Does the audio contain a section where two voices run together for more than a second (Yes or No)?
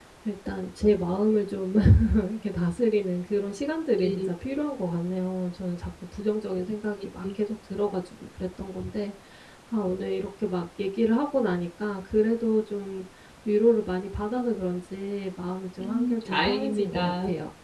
Yes